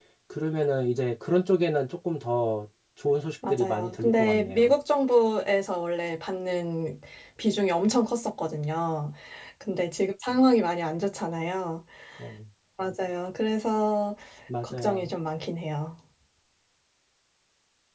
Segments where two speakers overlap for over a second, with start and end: 3.5-4.7

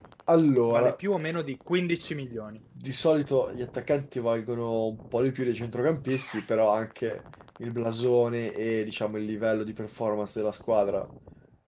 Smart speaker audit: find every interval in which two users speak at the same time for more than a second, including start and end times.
none

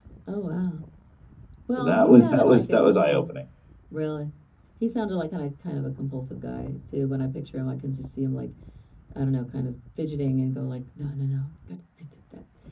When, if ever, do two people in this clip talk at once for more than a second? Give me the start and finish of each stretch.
1.8-3.2

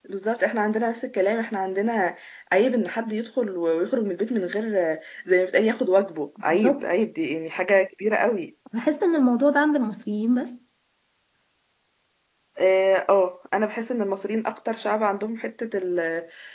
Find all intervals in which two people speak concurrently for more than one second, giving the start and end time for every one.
none

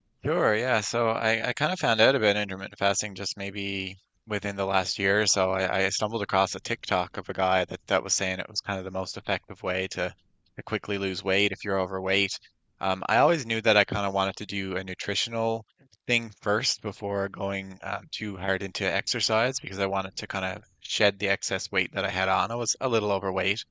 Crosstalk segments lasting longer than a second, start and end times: none

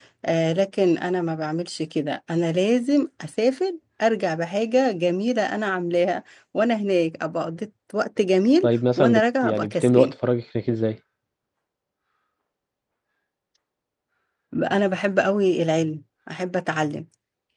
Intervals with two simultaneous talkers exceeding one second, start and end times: 8.6-10.1

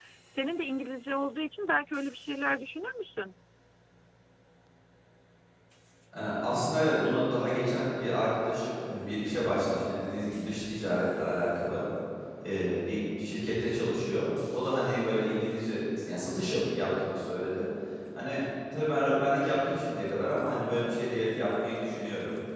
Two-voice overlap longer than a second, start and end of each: none

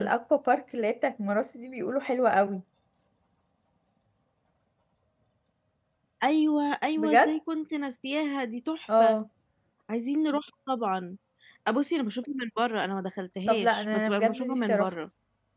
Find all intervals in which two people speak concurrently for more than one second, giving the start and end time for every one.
13.4-14.9

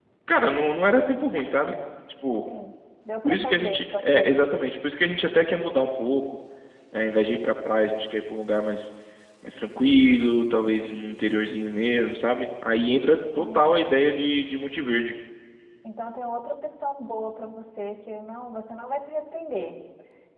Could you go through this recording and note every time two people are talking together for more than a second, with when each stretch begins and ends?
3.2-4.5

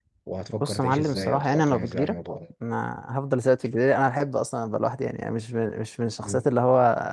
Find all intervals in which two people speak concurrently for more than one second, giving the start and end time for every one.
0.6-2.1

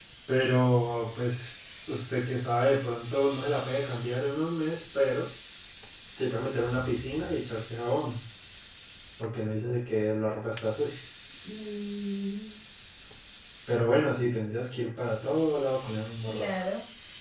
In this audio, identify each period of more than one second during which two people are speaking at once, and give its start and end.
none

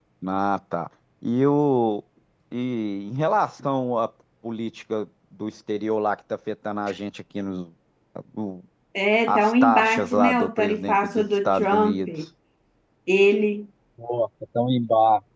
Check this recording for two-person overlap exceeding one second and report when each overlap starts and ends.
9.3-12.1

